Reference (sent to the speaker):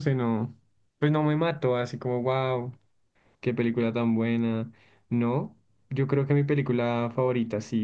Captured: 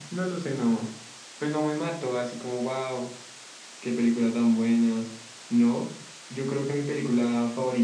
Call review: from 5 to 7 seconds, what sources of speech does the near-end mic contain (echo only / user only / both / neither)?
echo only